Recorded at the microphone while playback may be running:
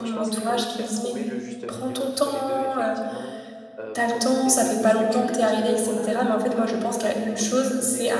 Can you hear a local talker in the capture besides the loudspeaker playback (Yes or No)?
Yes